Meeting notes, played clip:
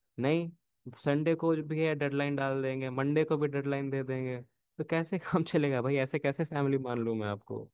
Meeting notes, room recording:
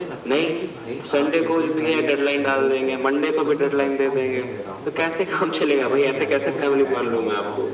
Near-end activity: present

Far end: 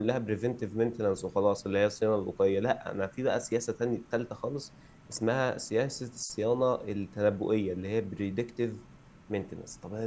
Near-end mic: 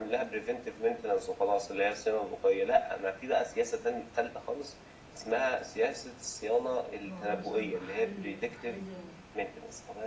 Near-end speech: present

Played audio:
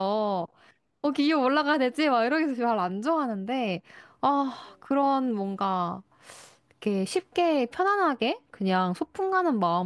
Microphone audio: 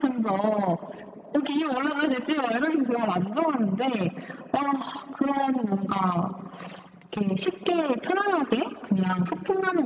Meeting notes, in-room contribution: none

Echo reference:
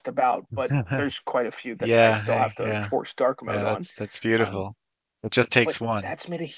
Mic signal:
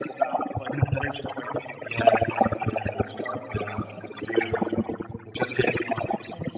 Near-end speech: none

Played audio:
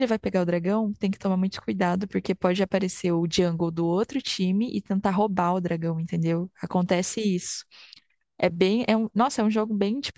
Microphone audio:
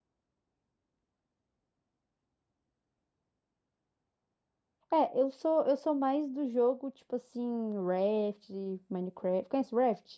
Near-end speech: present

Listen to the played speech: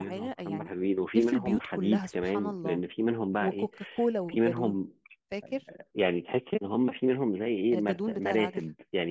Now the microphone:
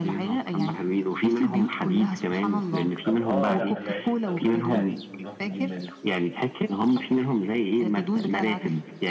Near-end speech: present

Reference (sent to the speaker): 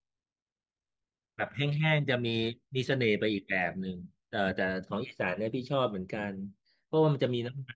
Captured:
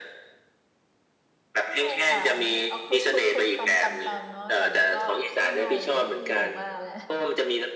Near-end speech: present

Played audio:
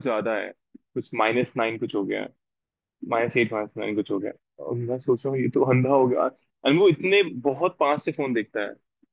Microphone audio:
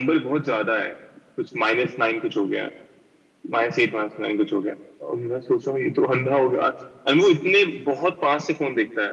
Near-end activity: none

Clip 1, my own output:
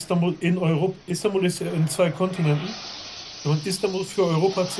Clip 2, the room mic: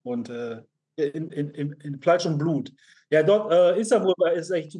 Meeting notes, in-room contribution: present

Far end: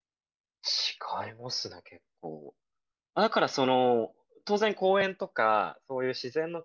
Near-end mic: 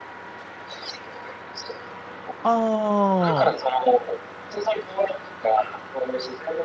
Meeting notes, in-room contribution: present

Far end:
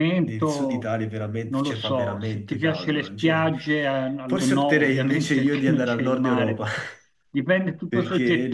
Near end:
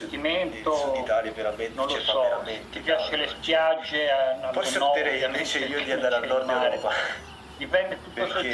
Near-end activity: none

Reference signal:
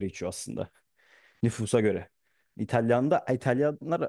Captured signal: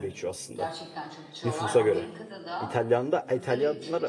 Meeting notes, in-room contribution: present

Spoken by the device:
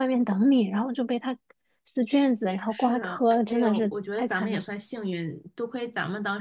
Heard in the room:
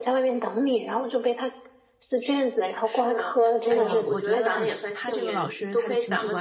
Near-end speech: present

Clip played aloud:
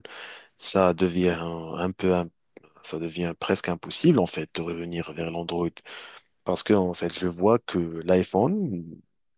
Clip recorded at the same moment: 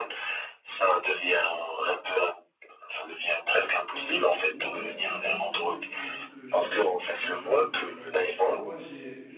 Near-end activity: present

